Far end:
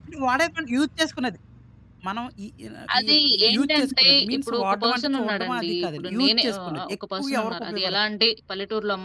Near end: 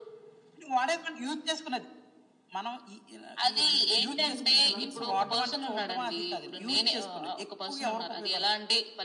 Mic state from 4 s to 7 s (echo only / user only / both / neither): both